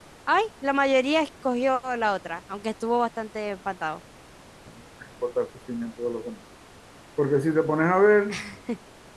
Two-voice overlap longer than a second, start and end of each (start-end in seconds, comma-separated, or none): none